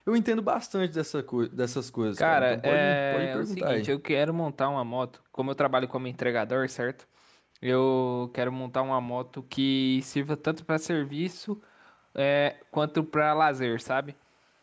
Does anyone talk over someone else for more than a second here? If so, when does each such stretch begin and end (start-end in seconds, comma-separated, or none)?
2.2-3.9